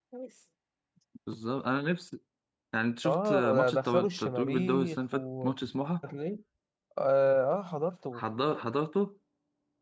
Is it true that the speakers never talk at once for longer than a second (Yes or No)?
No